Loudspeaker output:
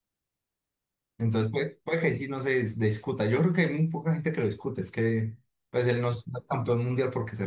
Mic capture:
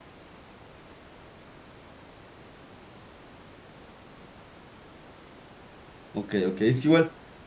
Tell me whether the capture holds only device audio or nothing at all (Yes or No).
No